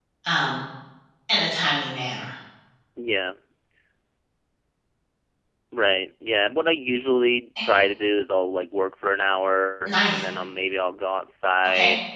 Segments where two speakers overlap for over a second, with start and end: none

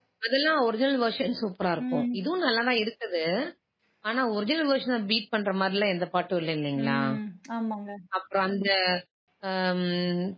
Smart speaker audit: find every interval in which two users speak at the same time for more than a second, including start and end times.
none

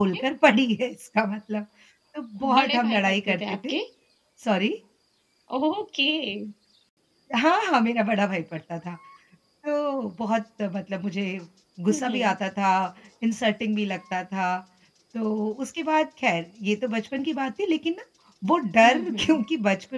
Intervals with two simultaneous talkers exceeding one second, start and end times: 2.4-3.7

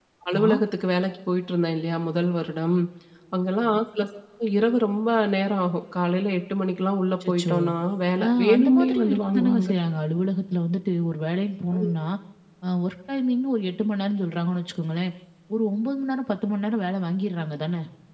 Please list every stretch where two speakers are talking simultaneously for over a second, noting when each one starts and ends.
8.2-9.7

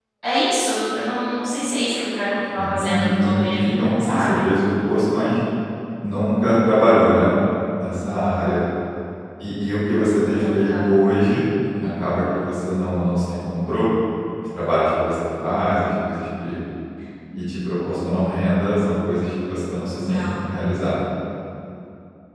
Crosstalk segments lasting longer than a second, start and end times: 2.6-4.5

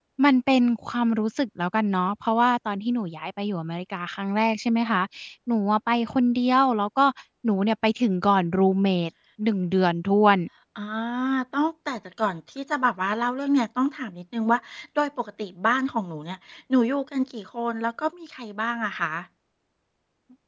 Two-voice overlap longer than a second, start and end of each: none

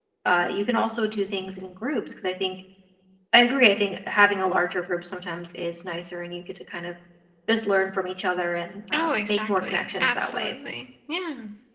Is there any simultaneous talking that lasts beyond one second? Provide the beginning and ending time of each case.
8.9-10.5

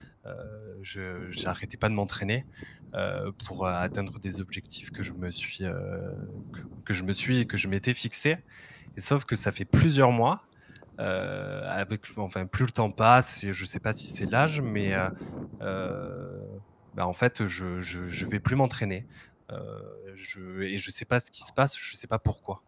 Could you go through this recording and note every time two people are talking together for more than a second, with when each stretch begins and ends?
none

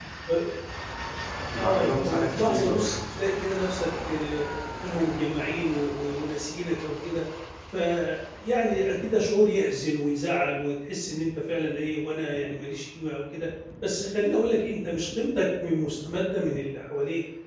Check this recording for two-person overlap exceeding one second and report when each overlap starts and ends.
1.6-3.0

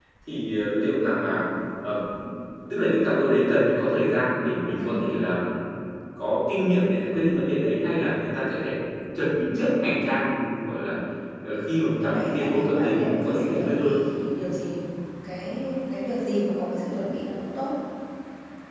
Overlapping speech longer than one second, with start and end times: 12.0-14.0

